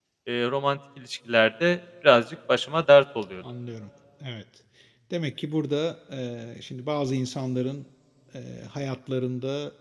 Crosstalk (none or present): none